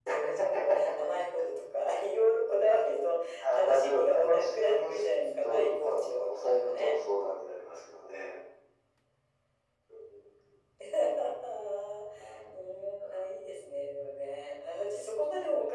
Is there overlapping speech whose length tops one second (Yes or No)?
Yes